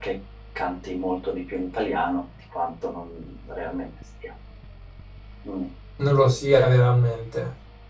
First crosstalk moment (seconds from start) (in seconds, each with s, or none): none